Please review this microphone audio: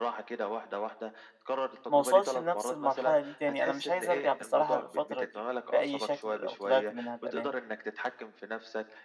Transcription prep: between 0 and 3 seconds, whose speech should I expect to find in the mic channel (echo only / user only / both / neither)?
both